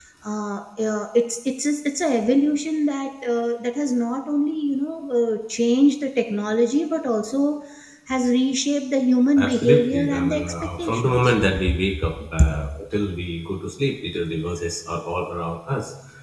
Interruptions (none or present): present